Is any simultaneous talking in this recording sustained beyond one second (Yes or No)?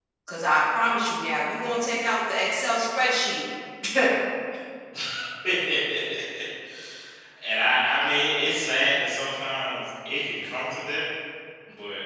No